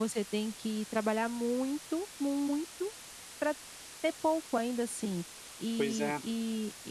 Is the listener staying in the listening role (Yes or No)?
Yes